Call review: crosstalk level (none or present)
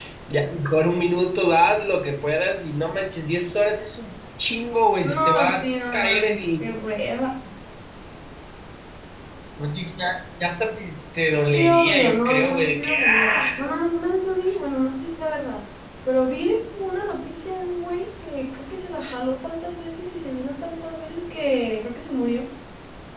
present